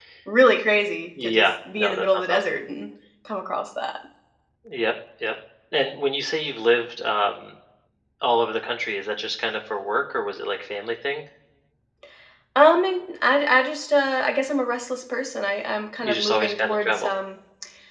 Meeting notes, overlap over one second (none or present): present